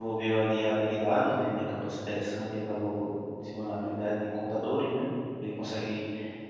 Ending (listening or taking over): listening